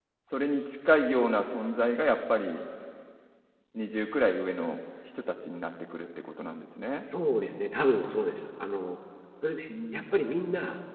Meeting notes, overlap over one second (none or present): none